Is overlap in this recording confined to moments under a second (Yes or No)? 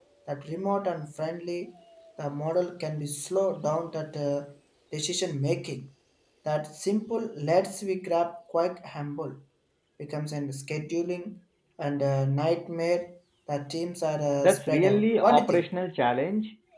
No